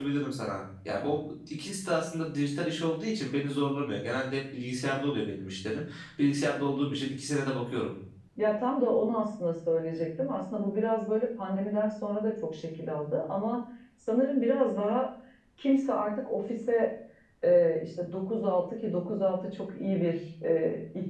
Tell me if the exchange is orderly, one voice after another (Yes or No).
Yes